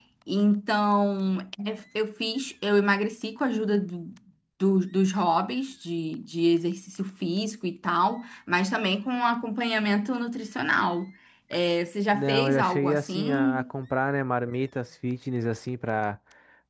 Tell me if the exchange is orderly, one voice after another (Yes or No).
No